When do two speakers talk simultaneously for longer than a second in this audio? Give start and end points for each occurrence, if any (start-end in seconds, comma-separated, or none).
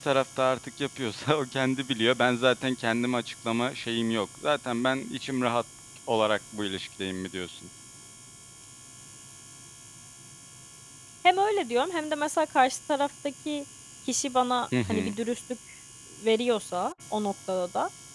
none